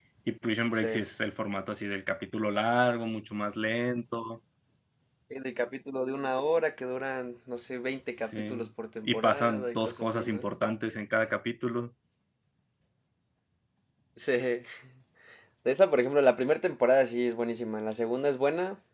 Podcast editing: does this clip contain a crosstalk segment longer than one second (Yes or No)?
Yes